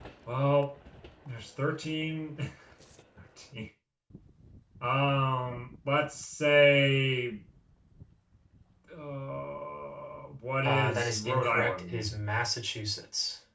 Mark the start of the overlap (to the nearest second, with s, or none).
11 s